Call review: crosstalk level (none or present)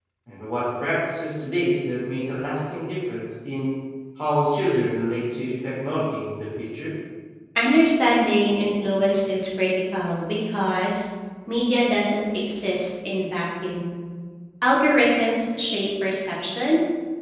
none